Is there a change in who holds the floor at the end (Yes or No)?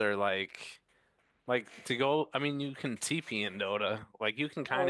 Yes